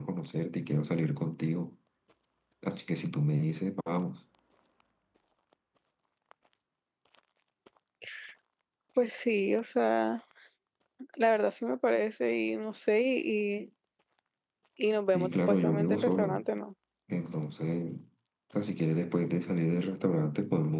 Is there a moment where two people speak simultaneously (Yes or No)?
Yes